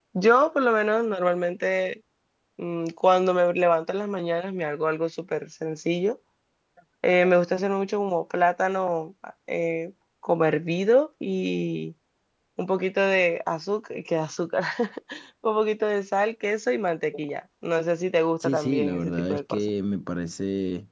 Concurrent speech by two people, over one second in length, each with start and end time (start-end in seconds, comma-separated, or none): 18.4-19.6